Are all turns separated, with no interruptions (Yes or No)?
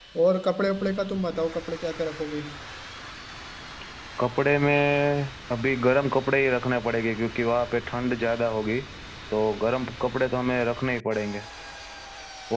Yes